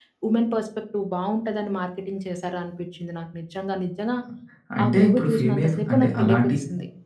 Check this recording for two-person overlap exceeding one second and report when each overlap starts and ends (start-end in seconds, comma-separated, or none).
4.8-6.6